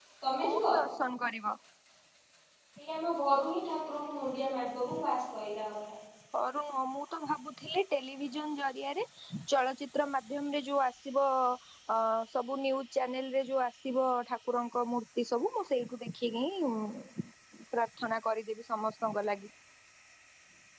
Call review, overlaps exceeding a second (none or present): none